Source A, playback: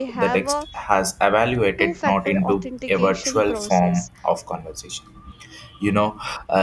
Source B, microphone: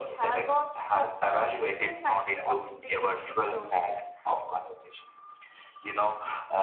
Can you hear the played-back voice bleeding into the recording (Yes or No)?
Yes